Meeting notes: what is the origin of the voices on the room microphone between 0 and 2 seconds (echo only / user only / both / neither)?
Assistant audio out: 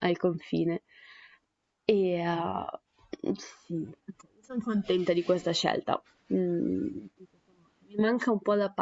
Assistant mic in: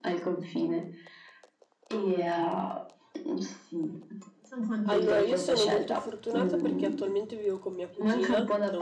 echo only